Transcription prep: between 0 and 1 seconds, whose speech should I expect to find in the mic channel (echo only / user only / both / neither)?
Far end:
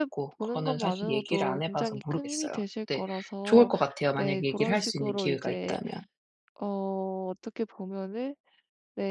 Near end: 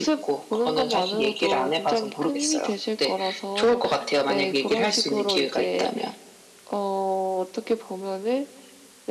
echo only